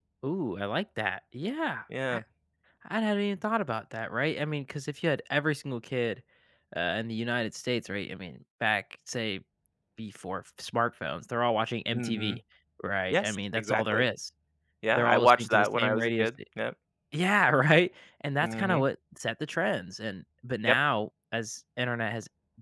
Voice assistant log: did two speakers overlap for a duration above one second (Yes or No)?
Yes